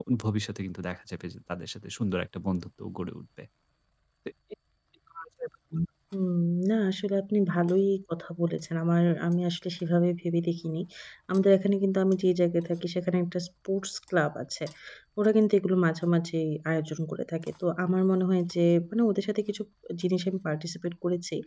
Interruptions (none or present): none